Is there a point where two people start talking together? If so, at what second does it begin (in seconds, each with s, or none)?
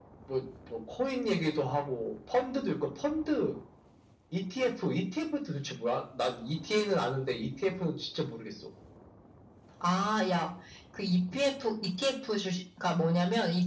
none